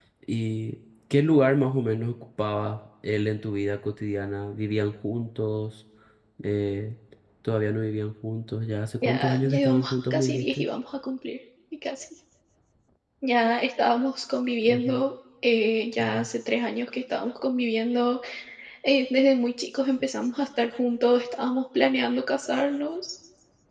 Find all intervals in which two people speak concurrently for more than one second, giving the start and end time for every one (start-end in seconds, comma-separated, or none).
9.0-10.7